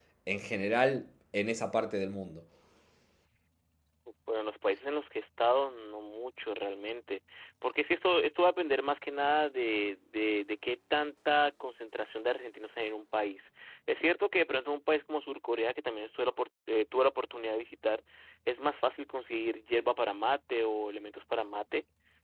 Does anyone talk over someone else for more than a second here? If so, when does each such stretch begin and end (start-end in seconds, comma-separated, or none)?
none